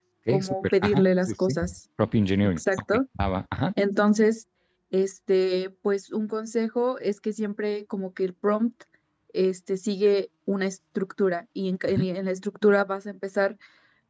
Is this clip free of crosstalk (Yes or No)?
No